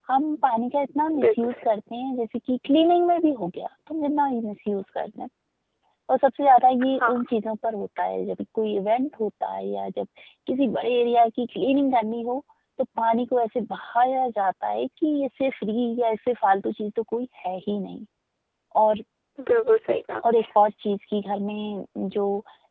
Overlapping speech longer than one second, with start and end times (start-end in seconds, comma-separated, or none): none